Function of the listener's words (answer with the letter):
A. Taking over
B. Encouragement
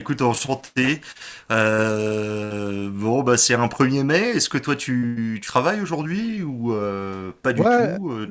A